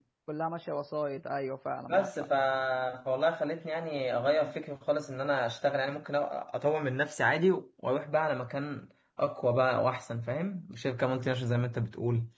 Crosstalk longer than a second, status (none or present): none